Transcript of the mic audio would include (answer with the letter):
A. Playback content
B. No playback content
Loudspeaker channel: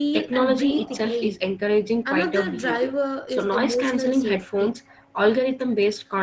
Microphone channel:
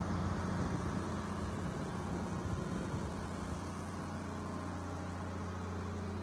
B